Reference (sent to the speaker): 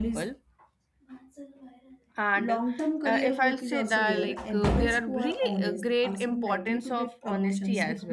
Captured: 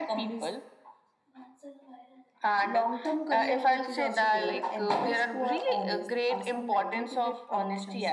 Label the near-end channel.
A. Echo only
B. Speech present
A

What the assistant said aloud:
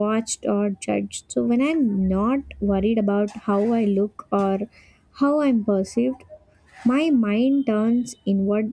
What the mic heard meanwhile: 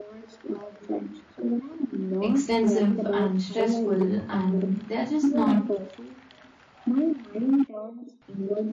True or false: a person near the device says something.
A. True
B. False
A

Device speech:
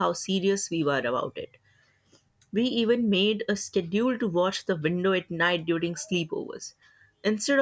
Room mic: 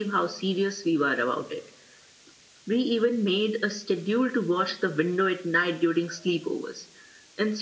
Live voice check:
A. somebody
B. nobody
B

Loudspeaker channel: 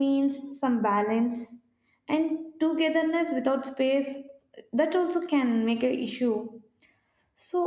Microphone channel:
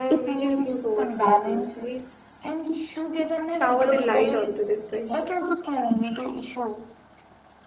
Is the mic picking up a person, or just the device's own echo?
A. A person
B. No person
A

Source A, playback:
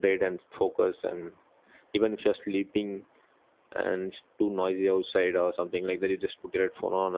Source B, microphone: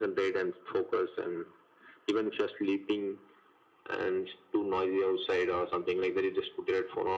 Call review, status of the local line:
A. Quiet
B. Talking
A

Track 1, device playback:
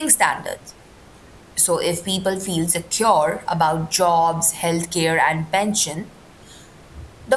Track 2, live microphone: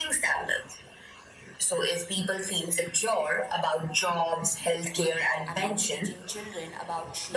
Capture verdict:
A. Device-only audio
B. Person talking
B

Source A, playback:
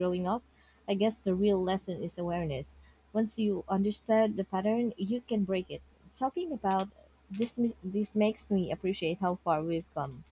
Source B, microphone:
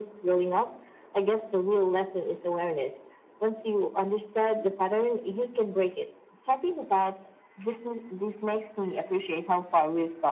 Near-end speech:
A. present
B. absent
B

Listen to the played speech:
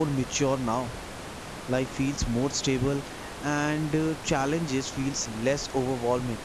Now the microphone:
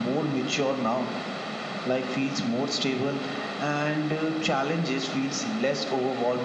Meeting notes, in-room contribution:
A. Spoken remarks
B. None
B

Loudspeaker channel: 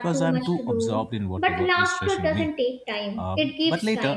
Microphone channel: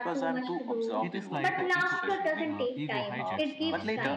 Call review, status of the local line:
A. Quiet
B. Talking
B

